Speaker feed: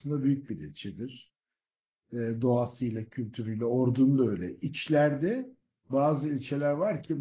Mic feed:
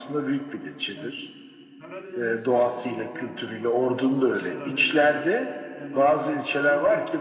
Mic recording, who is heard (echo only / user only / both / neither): both